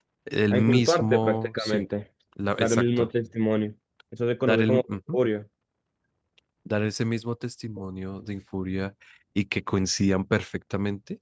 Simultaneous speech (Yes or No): Yes